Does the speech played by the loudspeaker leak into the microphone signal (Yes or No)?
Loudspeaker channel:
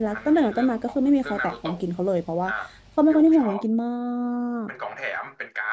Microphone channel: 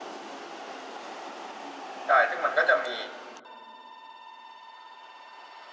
No